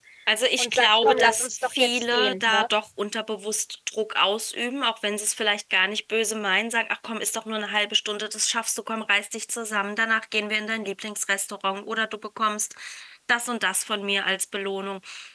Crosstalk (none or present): present